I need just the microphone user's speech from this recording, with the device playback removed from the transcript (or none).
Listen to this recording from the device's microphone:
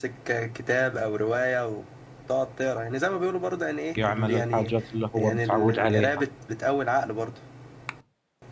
يعمل الحاجات اللي هو متعود عليها